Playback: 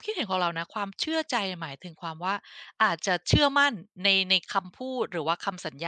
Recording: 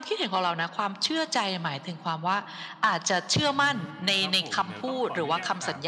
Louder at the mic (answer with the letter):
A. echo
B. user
A